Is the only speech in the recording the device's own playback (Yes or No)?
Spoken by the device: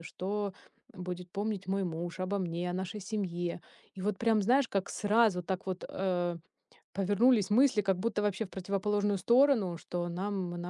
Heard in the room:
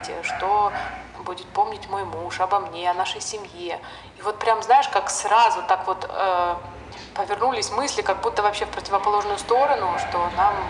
Yes